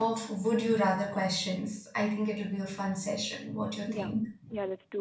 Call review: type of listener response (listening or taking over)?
taking over